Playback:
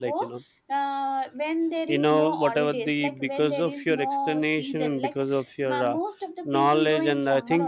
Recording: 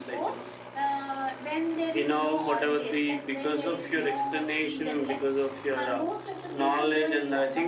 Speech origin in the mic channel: echo only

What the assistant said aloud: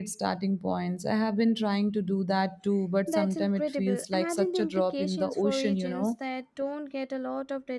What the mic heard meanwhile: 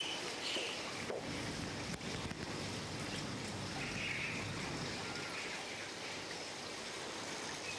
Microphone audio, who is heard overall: neither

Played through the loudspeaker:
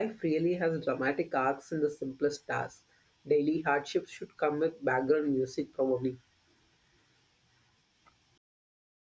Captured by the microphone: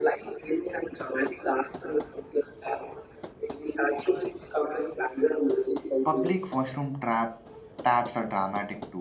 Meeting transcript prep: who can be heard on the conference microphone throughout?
both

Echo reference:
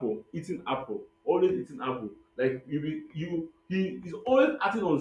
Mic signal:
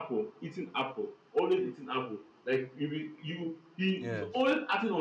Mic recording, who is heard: both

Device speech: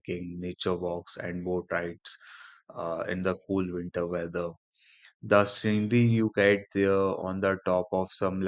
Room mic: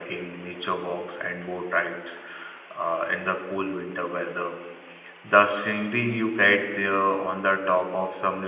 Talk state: echo only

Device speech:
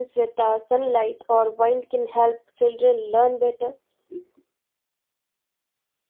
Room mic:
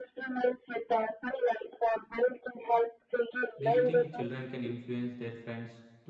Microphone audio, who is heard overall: both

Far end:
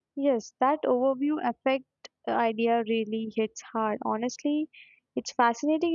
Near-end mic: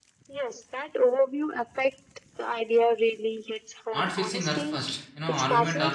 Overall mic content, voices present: both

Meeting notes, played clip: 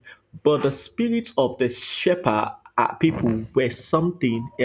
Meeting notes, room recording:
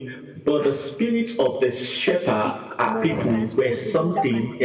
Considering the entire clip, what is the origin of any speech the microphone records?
both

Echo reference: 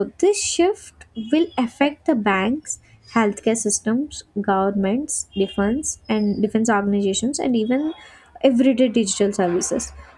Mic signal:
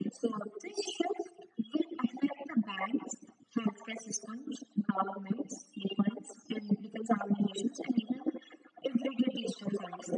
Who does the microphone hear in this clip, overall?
echo only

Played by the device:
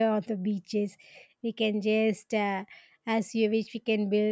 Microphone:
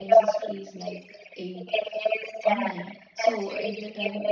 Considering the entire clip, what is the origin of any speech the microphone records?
both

